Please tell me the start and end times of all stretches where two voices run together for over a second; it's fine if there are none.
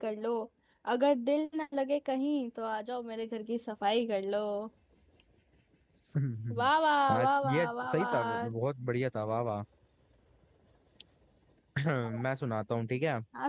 7.1-8.5

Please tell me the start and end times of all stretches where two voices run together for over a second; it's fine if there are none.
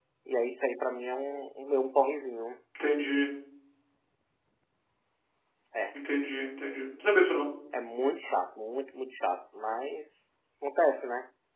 none

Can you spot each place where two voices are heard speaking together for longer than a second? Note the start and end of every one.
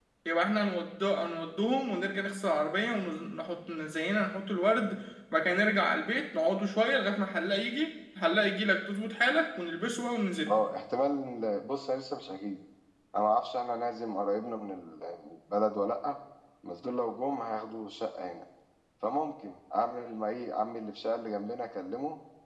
none

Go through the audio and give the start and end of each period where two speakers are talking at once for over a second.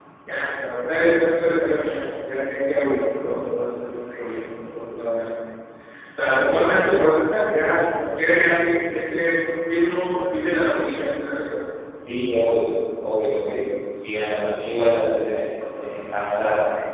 none

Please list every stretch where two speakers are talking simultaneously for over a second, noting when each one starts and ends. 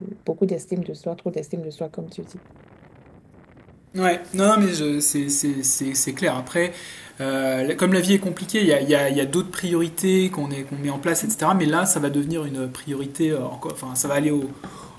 none

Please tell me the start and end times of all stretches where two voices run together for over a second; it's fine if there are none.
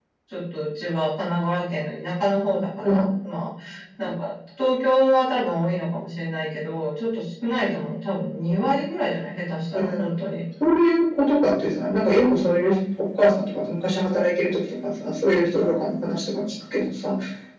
none

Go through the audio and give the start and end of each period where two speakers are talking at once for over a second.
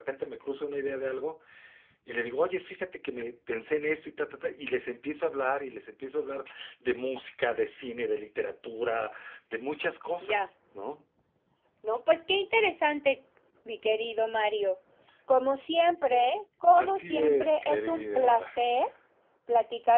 16.8-18.5

